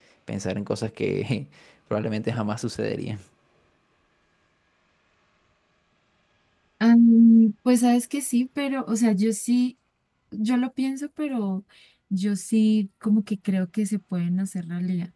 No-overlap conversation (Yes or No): Yes